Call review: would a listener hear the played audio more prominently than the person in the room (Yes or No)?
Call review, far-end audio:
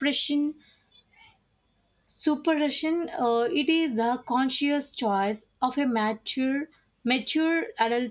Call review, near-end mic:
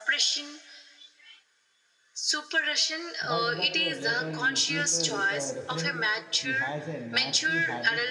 Yes